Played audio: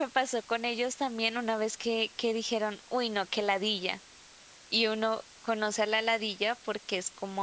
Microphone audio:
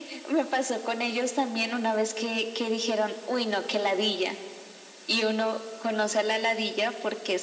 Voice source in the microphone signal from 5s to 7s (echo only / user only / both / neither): echo only